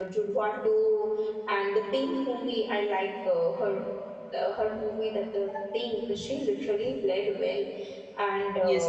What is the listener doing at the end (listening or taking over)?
taking over